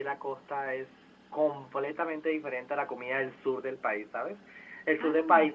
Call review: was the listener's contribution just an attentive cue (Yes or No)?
Yes